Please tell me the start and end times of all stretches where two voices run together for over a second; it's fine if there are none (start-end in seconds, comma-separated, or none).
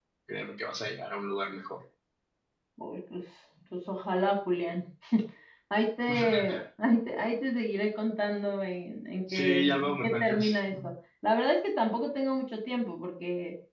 9.3-10.7